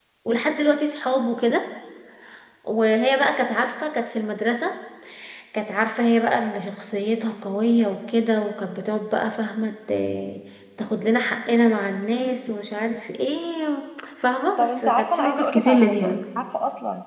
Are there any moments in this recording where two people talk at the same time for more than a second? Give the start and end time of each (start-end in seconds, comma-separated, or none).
14.6-16.2